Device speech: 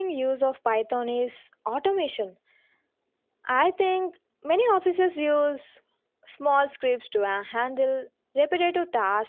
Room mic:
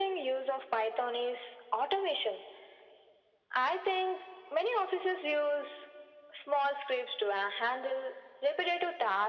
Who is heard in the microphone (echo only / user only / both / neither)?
echo only